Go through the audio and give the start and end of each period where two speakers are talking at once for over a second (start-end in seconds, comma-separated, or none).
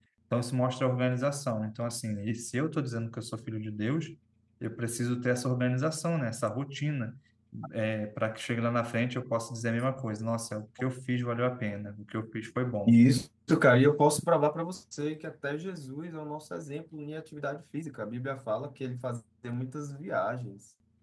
none